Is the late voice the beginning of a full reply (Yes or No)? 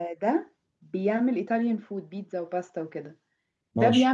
No